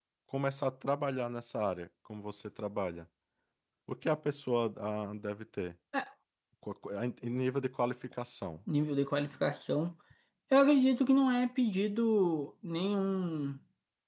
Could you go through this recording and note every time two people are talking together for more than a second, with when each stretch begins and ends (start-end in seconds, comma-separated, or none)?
none